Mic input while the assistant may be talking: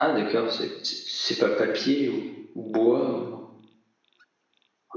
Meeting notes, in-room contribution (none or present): present